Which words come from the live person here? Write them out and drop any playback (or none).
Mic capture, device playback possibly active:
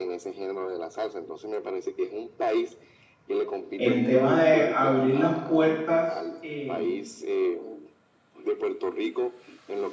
El tema de abrir las puertas eh,